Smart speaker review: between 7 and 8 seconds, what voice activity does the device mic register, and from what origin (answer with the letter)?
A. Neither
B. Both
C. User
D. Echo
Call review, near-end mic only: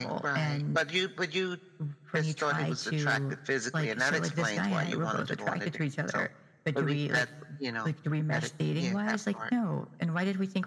D